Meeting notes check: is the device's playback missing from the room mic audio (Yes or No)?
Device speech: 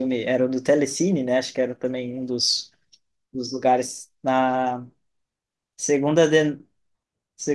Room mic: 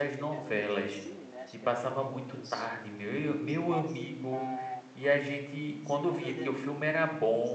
No